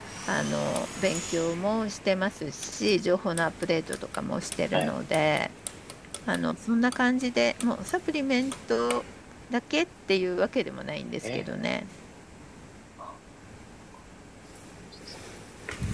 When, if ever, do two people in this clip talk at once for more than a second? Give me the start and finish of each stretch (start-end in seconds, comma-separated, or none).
none